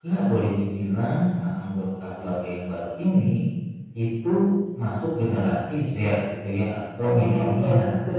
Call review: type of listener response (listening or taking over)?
taking over